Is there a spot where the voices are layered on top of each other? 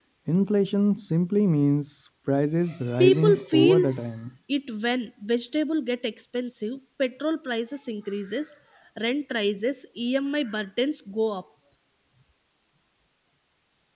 Yes, from 3.0 s

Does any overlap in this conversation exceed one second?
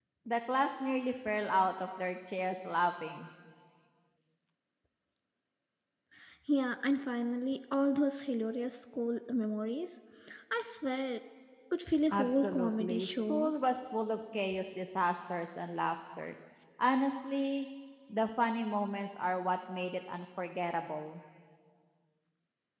Yes, from 12.1 s

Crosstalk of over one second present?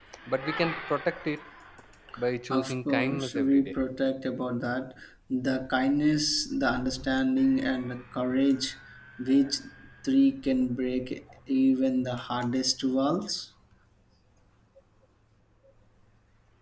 Yes, from 2.5 s

